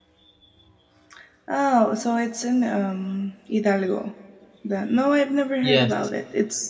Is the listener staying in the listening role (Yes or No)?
Yes